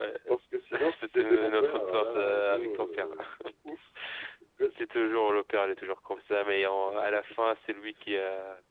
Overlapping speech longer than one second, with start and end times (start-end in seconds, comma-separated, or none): 0.7-3.1